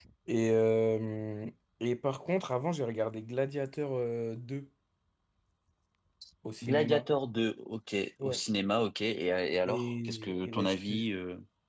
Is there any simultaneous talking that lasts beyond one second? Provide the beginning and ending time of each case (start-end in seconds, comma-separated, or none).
9.7-11.0